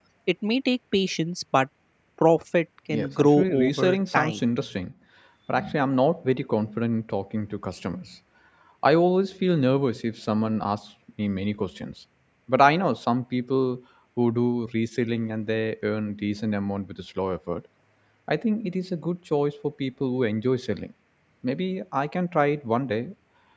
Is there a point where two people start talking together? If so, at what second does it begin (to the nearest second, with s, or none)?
3 s